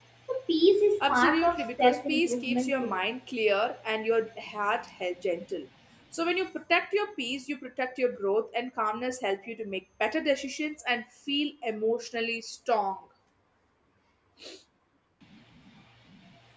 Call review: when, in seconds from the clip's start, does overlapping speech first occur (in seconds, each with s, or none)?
1.0 s